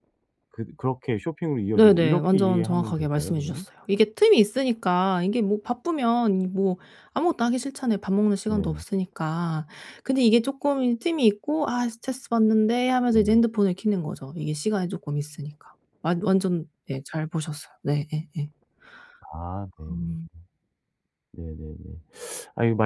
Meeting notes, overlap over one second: present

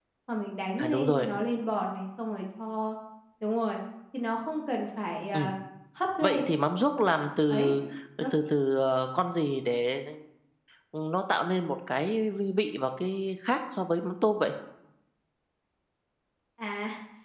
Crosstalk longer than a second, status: none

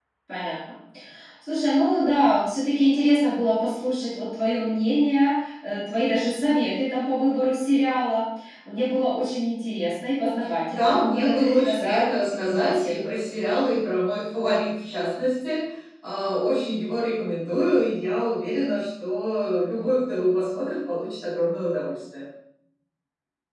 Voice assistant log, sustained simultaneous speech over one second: present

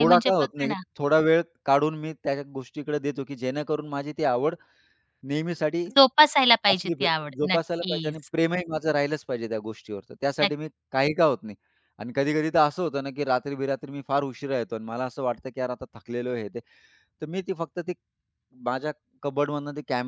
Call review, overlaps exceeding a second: present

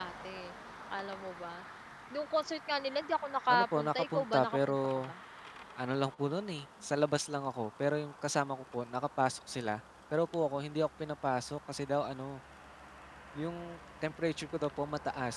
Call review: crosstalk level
present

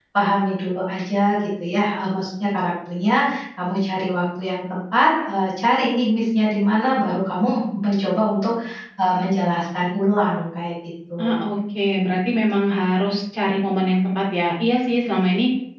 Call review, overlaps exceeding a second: none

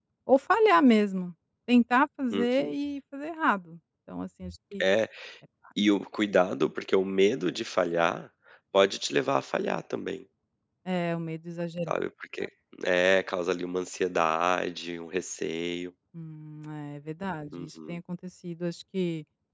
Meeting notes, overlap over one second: none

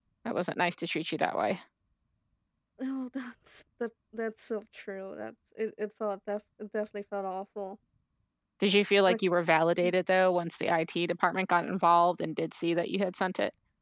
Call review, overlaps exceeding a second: none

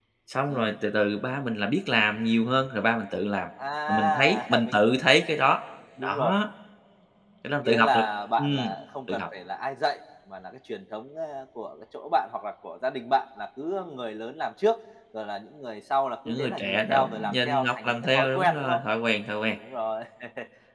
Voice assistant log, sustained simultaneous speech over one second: present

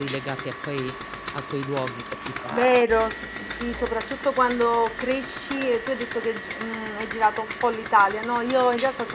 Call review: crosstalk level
none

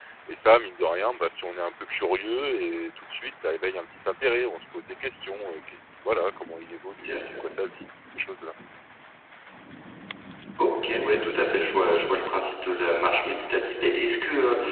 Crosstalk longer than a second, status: none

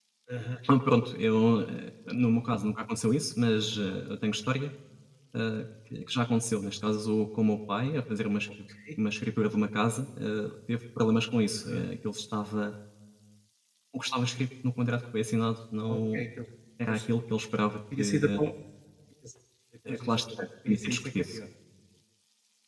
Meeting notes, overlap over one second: present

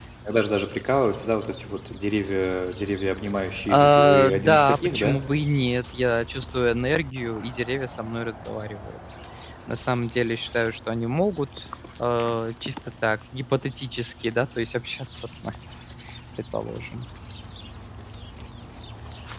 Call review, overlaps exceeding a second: present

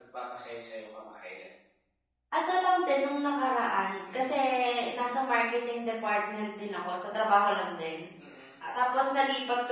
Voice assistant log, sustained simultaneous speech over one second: none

